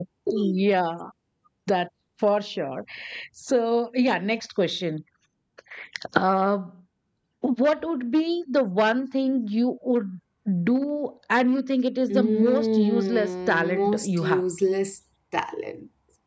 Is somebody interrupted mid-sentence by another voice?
Yes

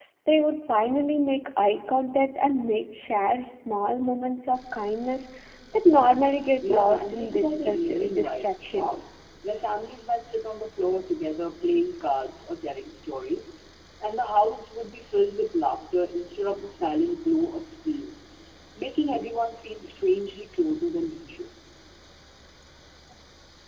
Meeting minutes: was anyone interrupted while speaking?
Yes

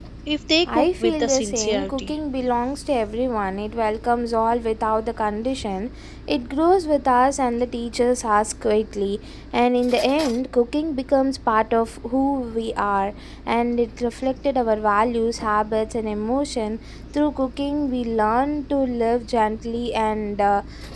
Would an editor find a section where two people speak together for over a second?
Yes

